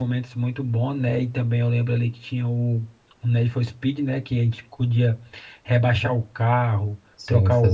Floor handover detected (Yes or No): No